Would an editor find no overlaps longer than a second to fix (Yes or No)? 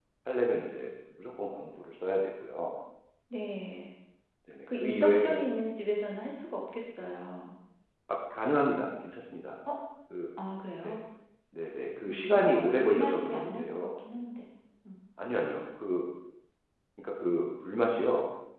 No